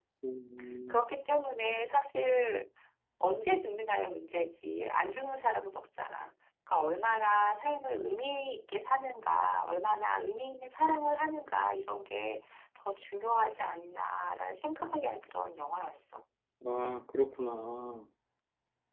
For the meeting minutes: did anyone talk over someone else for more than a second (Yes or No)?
No